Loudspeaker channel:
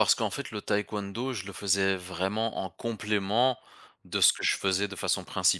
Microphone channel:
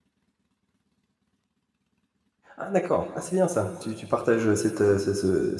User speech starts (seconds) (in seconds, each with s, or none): 2.6 s